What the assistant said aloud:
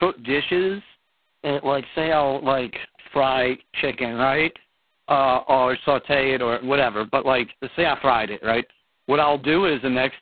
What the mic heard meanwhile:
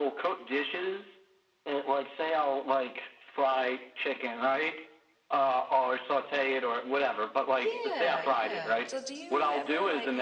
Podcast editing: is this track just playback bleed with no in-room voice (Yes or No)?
No